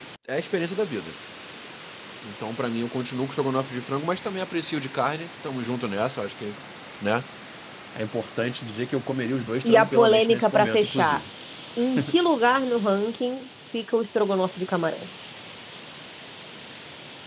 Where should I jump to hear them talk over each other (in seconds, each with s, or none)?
9.6 s